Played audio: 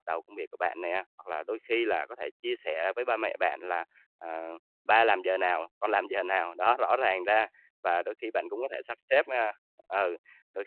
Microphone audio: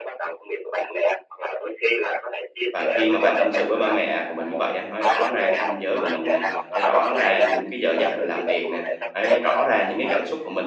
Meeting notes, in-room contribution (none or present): present